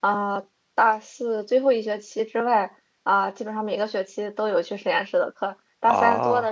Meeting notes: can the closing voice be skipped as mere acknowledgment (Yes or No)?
Yes